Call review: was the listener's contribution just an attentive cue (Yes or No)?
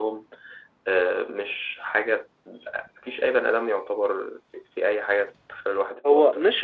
No